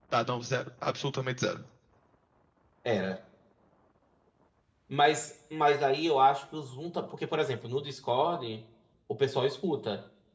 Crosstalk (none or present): none